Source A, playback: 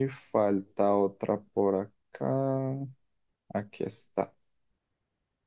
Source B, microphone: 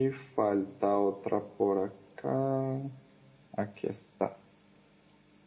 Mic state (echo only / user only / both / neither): echo only